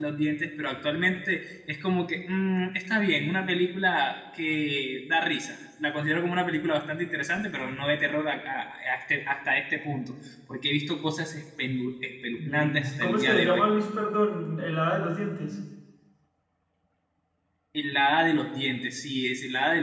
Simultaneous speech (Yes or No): Yes